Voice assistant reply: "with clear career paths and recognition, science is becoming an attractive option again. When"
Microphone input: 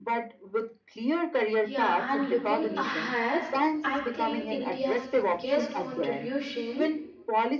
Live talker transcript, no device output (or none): Yeah, and looking ahead, I think India's biggest contribution